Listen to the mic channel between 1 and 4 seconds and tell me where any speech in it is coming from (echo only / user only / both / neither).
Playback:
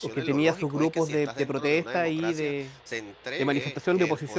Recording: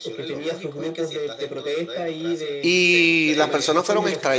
both